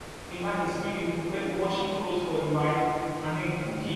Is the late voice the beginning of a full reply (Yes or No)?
No